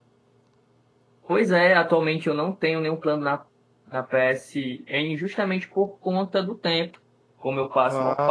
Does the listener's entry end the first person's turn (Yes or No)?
No